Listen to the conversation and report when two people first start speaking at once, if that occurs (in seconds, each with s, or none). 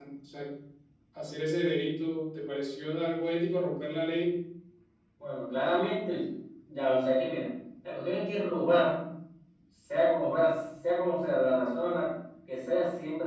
none